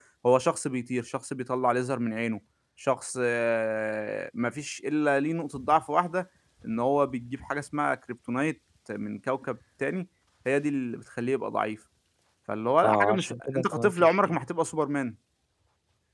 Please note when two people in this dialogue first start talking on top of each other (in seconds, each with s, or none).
12.8 s